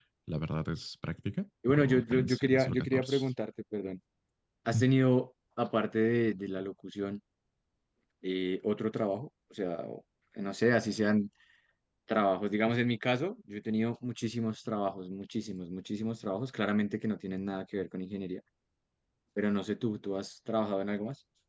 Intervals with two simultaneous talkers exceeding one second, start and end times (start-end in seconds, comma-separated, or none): 1.7-3.2